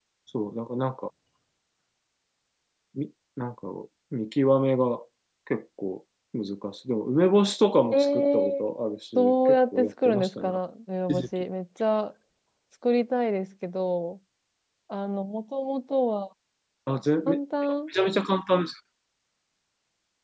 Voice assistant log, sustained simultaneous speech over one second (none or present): present